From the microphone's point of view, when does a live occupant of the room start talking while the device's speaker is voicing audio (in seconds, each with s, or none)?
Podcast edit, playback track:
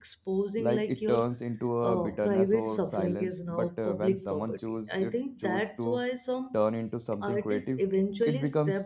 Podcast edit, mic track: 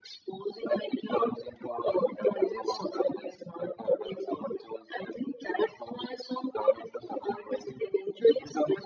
none